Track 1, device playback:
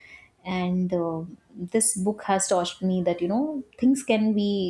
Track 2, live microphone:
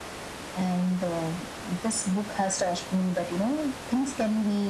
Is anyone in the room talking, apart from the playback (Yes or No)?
No